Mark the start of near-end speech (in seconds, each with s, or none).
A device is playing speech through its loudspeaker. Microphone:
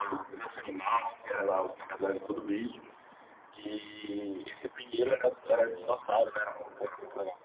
5.4 s